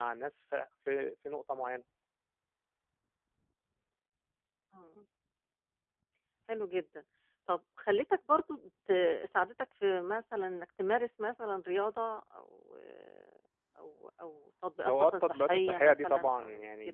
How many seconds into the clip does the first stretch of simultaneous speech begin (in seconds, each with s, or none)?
14.8 s